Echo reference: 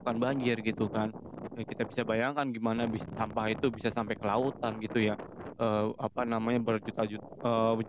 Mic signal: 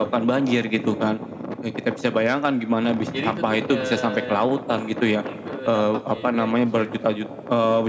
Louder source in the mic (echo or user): echo